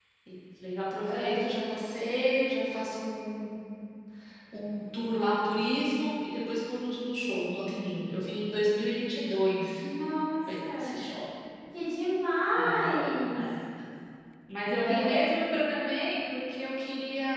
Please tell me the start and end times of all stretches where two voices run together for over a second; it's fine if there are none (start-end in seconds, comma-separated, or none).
none